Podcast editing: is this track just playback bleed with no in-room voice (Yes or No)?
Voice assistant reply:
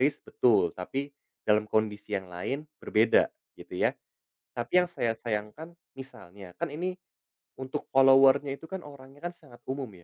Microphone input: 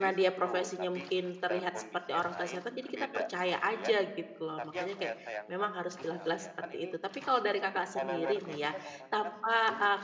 No